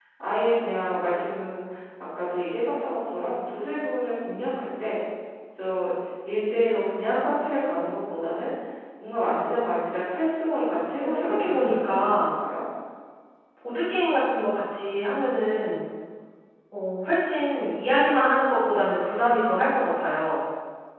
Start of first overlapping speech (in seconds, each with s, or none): 11.0 s